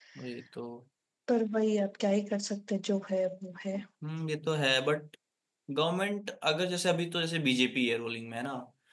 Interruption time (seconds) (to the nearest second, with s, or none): none